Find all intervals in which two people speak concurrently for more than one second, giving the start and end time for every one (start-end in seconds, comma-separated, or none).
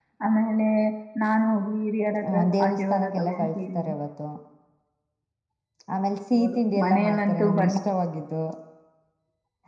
2.3-3.8, 6.4-7.8